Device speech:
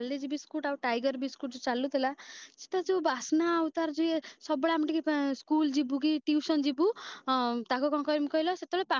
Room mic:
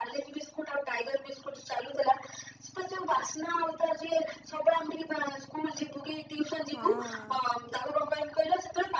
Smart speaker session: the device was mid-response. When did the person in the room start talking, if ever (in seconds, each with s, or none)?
6.8 s